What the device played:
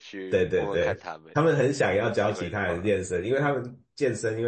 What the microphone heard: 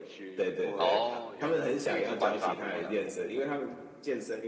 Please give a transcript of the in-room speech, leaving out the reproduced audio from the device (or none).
哦，原来，就是玩法不一样了。